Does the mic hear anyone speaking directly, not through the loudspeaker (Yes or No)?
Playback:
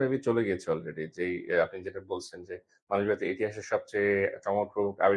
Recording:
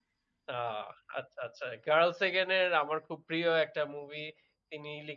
Yes